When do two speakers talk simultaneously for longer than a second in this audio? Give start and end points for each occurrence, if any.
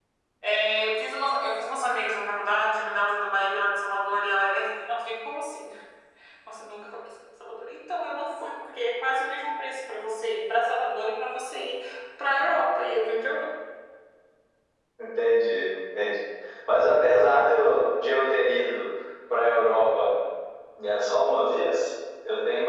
none

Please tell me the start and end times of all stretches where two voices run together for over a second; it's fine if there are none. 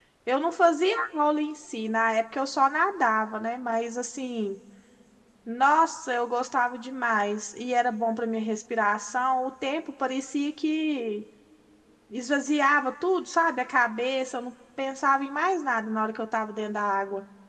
none

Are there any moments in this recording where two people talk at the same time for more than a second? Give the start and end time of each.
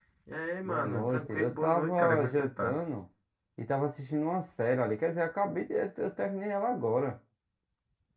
0.7-2.8

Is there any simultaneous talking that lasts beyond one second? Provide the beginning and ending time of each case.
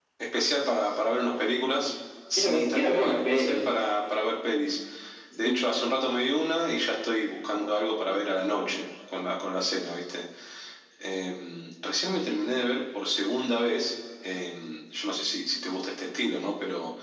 2.4-3.7

